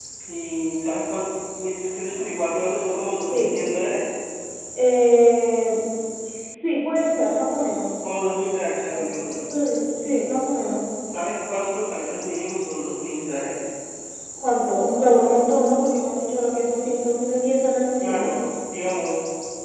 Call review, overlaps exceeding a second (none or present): none